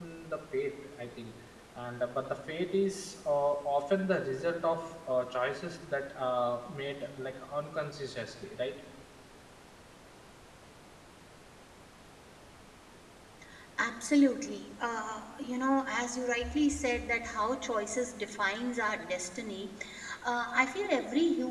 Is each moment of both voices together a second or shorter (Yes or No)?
Yes